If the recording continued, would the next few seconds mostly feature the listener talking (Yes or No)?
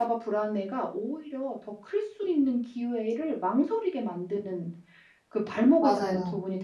No